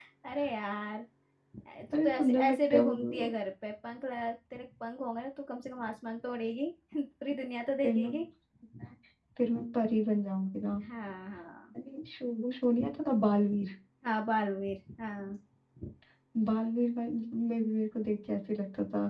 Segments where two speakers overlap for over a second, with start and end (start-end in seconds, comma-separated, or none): 1.9-3.3